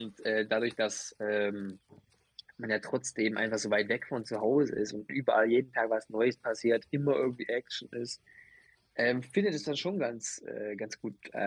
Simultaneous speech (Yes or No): No